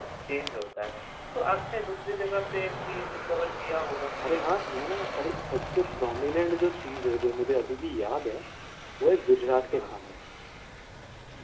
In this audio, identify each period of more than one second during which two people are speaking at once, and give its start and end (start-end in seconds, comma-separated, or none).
none